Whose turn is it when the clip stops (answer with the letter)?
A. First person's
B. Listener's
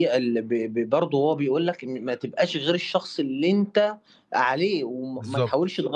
A